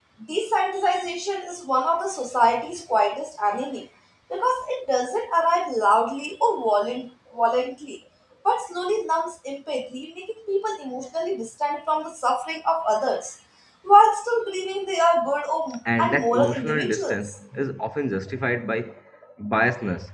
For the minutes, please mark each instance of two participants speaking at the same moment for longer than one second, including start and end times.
16.0-17.3

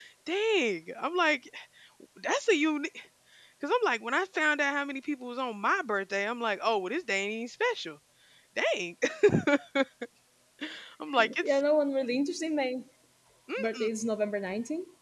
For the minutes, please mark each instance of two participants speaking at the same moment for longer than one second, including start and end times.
none

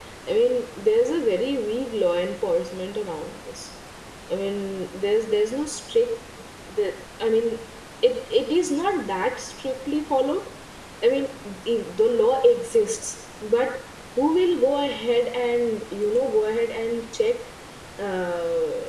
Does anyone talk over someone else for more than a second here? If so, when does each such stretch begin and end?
none

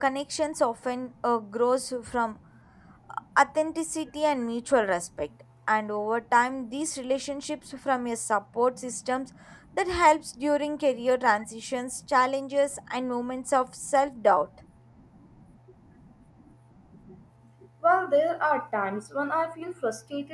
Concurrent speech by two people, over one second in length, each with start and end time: none

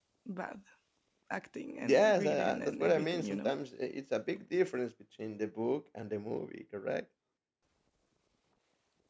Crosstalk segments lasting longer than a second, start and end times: 1.8-3.5

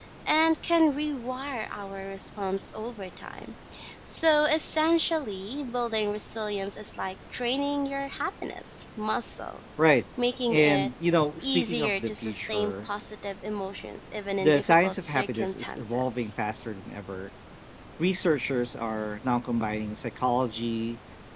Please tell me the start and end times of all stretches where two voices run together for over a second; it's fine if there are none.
11.4-12.9, 14.4-16.4

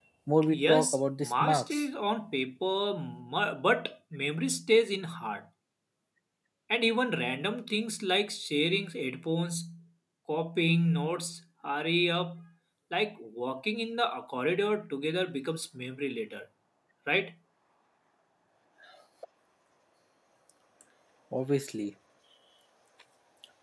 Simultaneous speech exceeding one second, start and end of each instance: 0.5-1.8

